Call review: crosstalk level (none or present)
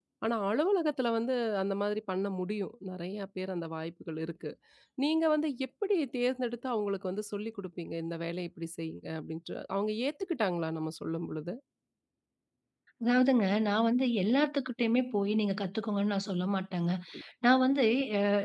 none